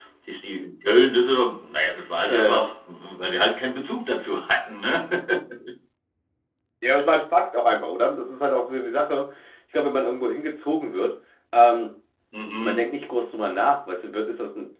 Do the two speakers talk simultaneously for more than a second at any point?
No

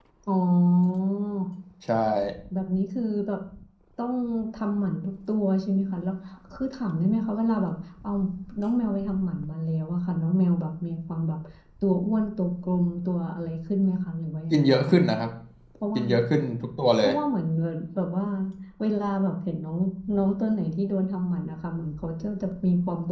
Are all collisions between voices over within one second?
Yes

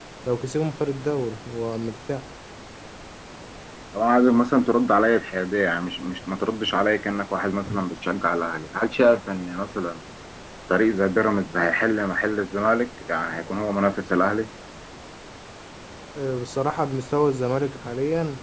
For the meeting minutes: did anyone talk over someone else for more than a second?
No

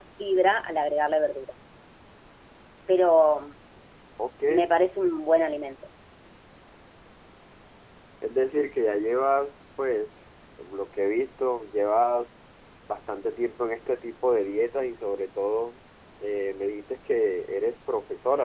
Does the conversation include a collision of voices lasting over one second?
No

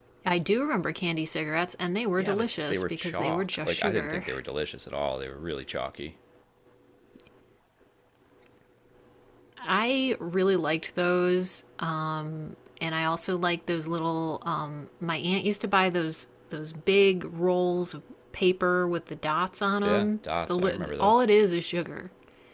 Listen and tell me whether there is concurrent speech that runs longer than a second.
Yes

